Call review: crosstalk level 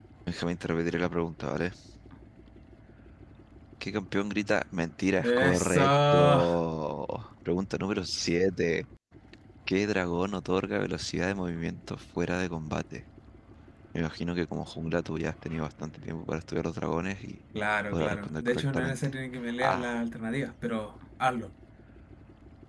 present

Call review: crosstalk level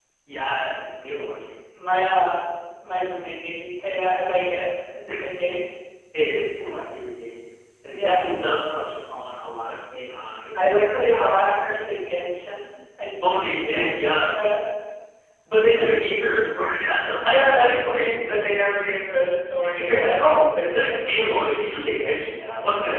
present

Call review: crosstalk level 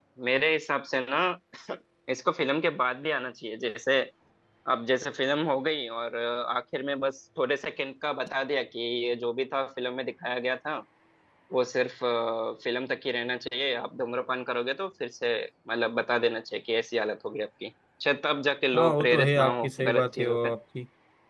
present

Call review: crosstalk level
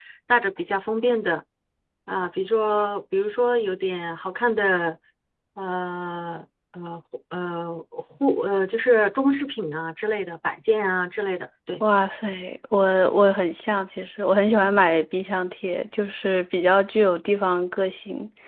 none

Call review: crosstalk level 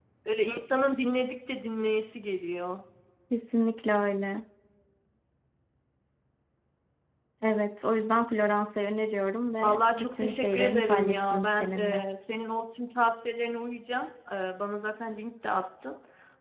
present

